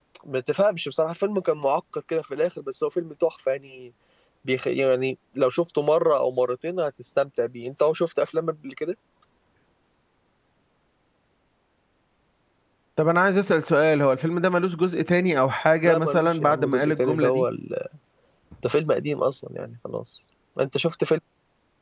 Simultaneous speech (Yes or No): Yes